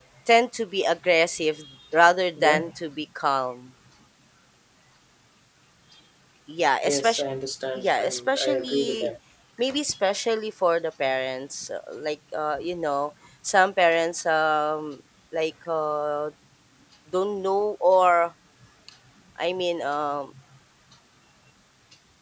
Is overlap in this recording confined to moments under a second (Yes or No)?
No